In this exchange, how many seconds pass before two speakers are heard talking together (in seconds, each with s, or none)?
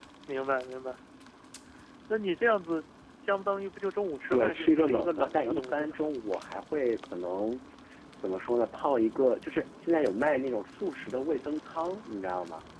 4.3 s